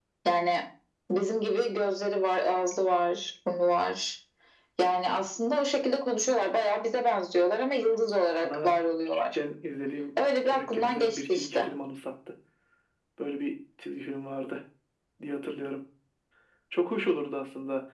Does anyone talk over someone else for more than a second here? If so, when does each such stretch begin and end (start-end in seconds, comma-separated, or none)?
10.4-11.7